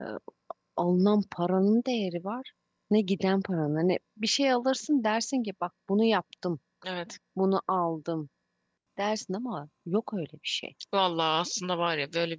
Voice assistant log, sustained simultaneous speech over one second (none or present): none